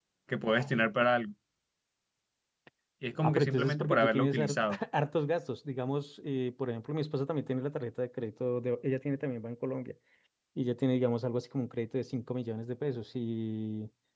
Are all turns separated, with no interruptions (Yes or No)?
No